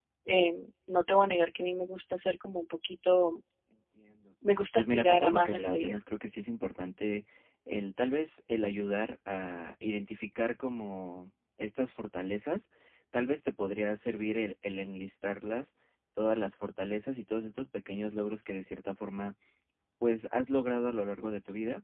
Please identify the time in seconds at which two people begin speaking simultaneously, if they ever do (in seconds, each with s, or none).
4.8 s